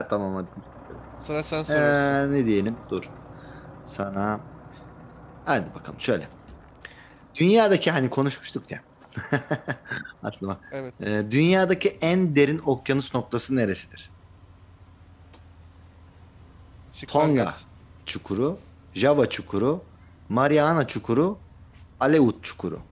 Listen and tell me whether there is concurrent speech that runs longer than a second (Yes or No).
No